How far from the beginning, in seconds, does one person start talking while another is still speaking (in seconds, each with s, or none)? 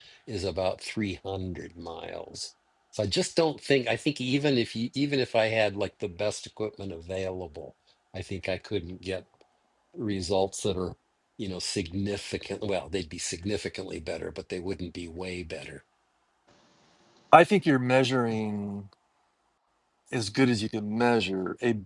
none